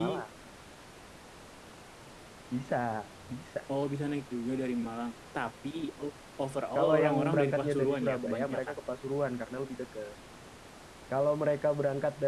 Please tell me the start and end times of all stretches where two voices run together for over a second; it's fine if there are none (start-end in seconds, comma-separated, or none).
6.8-8.6